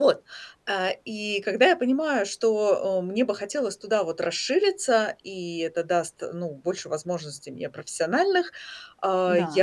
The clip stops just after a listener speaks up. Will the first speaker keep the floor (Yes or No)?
Yes